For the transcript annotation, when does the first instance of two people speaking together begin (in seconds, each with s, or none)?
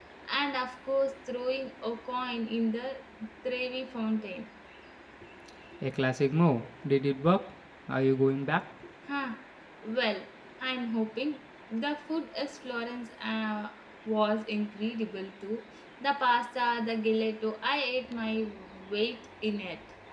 none